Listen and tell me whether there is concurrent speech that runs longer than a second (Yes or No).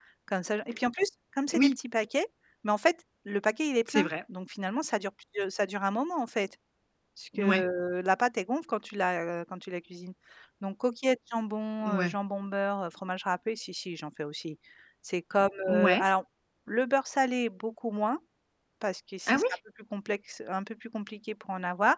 No